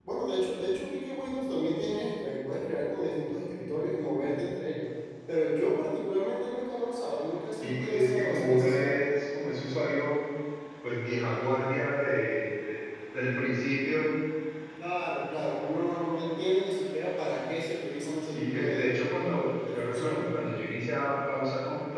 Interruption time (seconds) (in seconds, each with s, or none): 7.6 s